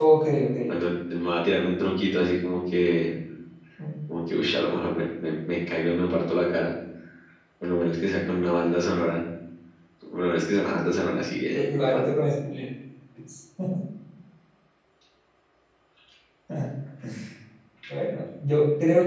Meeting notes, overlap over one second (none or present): none